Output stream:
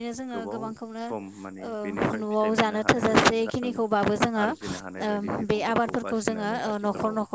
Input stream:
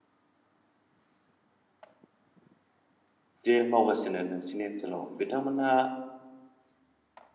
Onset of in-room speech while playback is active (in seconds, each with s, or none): 3.5 s